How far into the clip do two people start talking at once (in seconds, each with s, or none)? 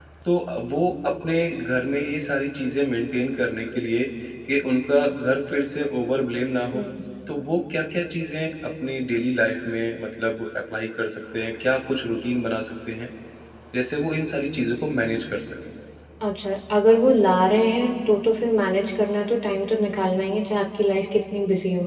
none